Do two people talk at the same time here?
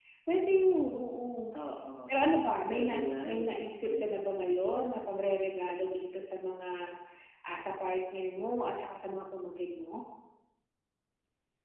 Yes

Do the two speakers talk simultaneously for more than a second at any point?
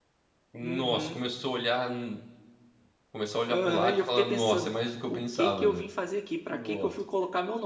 Yes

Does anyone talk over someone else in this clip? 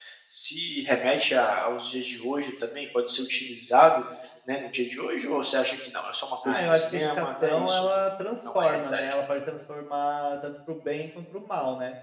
Yes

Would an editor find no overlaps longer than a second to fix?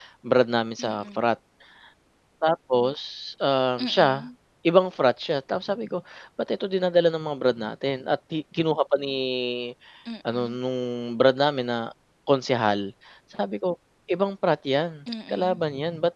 Yes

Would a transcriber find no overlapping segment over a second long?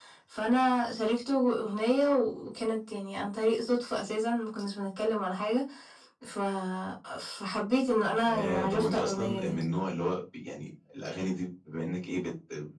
No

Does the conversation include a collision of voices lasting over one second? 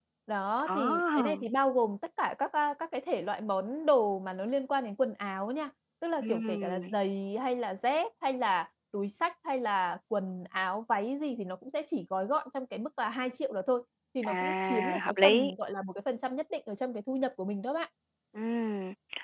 Yes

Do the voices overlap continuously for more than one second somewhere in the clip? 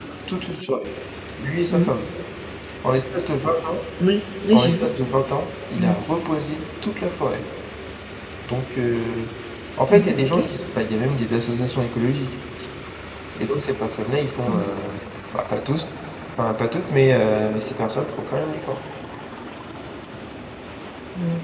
No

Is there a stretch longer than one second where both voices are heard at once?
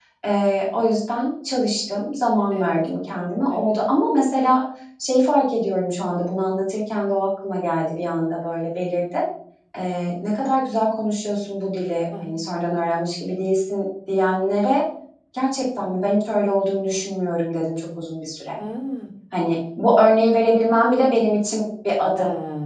No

